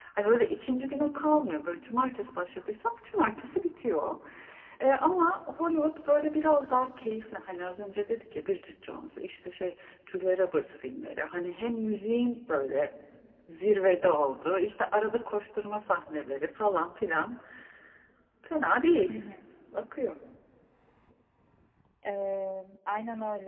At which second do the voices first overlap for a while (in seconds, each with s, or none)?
none